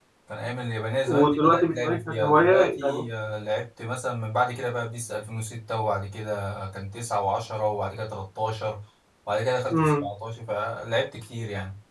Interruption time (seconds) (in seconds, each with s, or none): 1.1 s